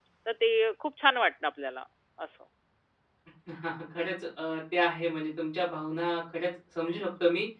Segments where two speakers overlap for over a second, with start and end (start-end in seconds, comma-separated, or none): none